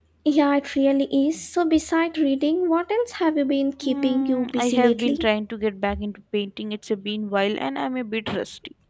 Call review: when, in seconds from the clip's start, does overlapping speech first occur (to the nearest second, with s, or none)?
4 s